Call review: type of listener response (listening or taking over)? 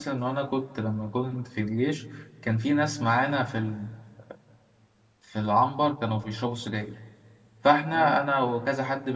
listening